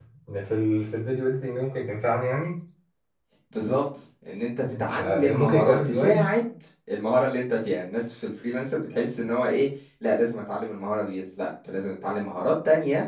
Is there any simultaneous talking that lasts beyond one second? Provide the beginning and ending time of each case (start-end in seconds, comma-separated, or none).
4.6-6.3